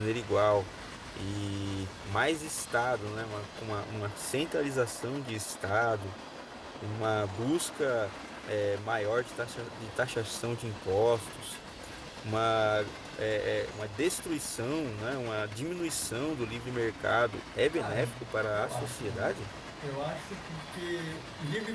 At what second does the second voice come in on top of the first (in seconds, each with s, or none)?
17.7 s